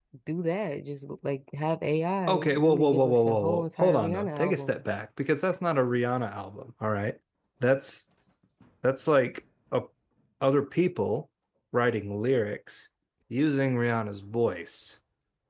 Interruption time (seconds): 2 s

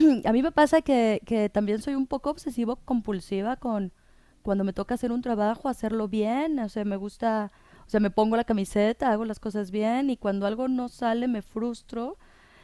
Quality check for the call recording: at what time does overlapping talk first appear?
none

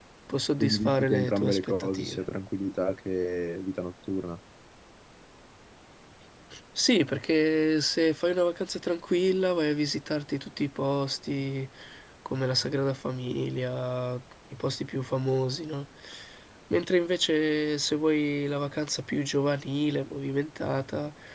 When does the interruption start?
1 s

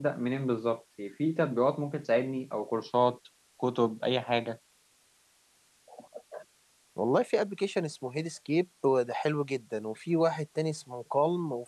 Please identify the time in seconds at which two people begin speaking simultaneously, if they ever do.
none

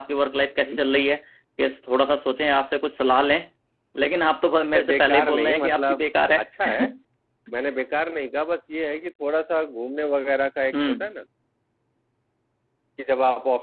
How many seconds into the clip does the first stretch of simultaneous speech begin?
5 s

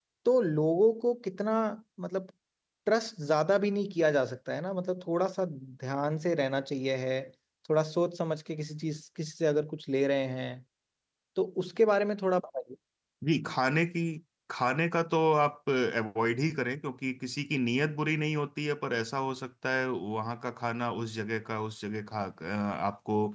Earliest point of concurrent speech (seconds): none

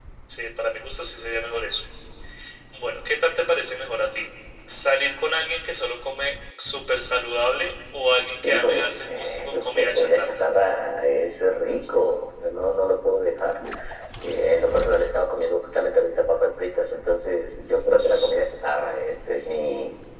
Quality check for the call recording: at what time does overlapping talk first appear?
8 s

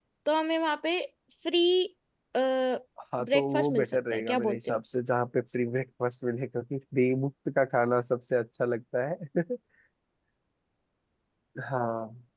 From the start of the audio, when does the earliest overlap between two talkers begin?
3 s

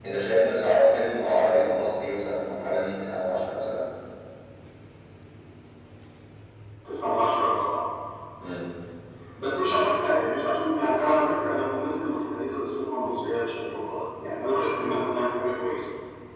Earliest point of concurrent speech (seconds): none

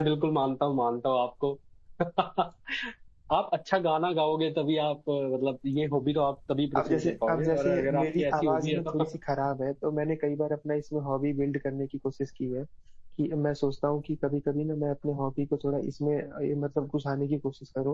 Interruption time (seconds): 7 s

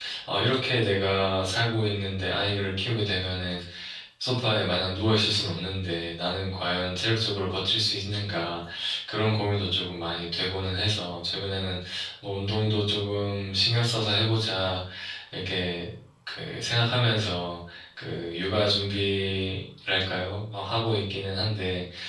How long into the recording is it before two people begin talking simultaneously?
none

